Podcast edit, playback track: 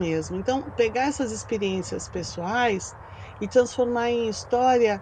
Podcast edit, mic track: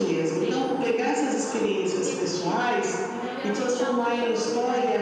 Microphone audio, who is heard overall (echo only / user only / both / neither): both